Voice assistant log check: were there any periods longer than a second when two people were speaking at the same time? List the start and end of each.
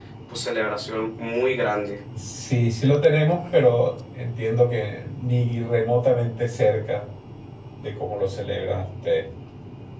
none

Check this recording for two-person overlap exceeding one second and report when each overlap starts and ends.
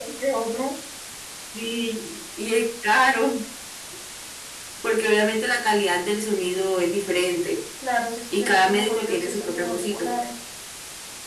8.3-10.1

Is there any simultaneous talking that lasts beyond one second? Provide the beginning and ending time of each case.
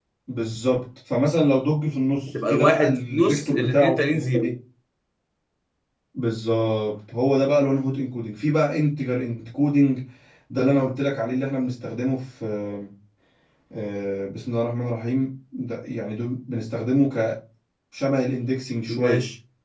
2.3-4.5

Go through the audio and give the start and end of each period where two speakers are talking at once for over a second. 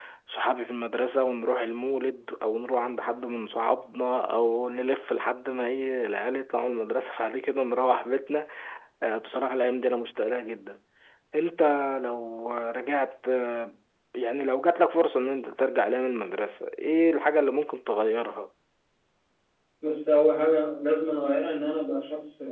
none

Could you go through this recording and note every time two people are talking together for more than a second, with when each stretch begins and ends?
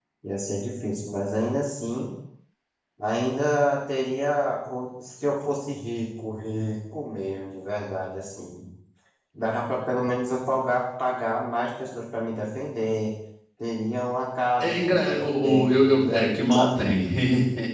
14.6-16.8

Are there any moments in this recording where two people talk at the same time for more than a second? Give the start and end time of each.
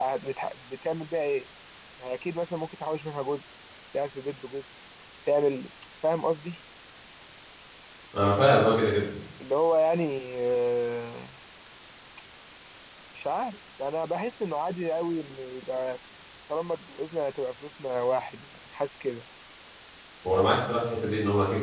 none

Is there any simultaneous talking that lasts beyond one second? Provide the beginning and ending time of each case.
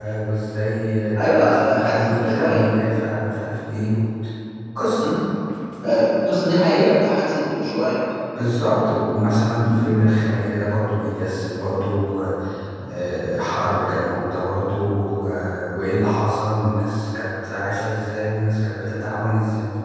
1.4-2.7

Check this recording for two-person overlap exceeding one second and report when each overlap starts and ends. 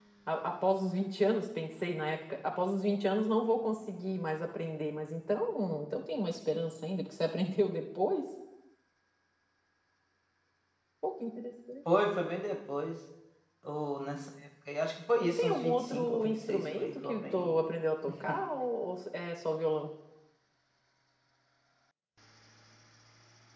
15.4-17.5

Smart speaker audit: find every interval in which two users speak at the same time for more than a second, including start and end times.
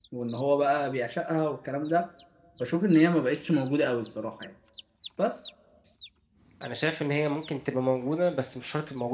none

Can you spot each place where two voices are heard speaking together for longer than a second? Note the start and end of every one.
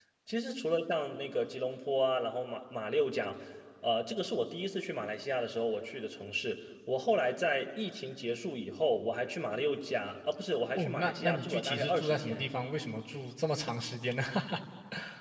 10.8-12.5

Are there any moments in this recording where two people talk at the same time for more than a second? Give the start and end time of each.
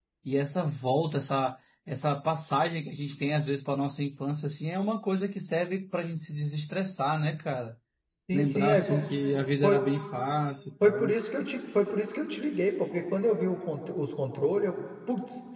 8.3-9.8

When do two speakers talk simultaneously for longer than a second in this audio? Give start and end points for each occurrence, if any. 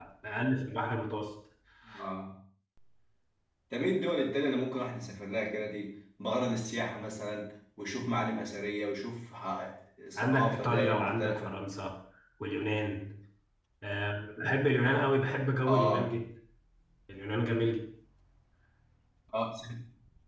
10.2-11.6

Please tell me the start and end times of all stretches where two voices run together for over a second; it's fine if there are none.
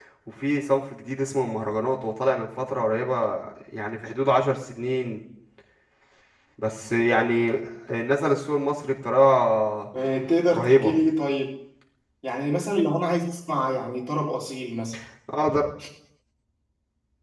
none

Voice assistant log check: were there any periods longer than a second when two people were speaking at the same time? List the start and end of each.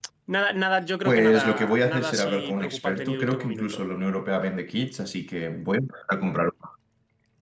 1.0-3.8

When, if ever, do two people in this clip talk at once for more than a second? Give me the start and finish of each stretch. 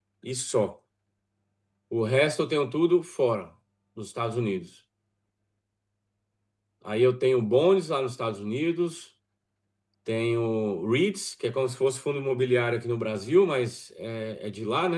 none

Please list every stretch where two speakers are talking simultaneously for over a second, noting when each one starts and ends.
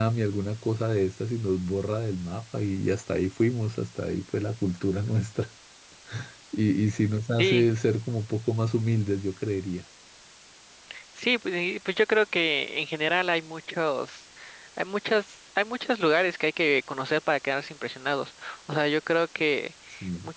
none

